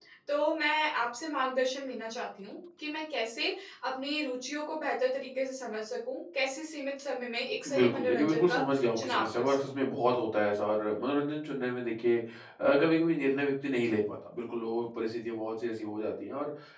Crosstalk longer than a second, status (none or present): present